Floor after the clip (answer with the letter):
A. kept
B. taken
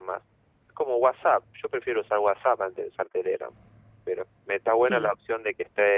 A